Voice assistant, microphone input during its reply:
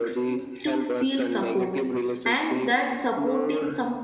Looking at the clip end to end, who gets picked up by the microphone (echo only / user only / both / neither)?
both